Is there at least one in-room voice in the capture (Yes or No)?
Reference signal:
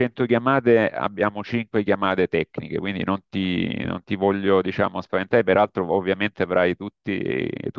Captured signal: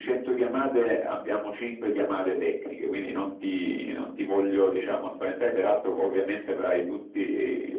No